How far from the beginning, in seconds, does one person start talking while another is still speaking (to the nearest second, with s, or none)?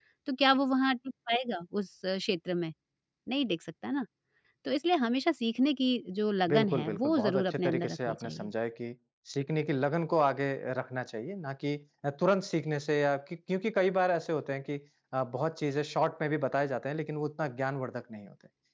6 s